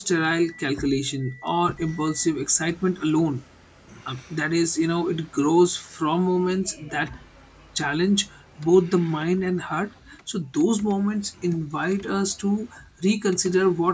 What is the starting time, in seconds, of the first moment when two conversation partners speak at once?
none

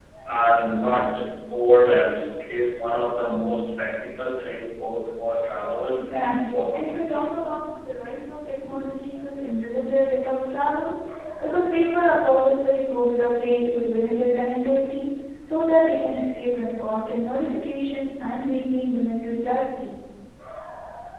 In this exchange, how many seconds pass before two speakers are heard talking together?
5.9 s

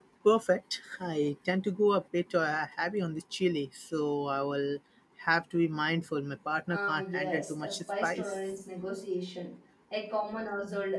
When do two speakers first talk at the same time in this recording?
6.7 s

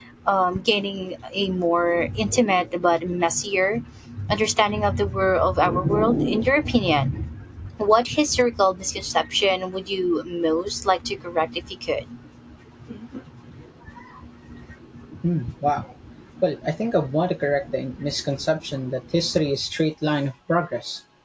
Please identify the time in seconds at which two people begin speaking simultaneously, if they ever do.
none

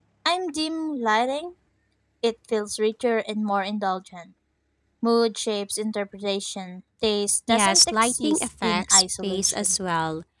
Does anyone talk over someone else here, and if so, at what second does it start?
7.5 s

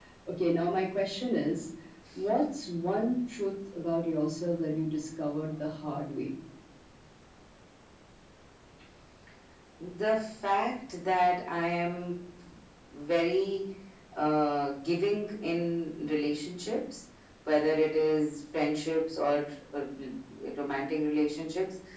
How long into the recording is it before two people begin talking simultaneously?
none

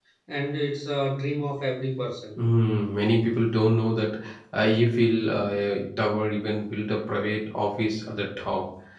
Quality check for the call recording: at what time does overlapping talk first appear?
none

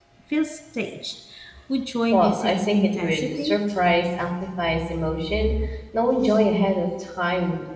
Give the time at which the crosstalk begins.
2.1 s

